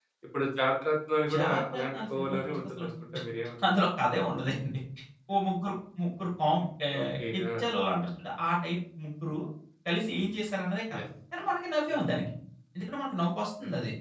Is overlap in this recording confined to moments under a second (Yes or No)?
No